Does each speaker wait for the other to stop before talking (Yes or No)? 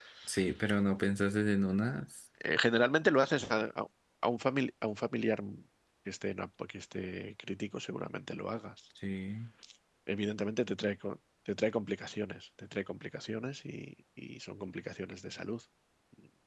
Yes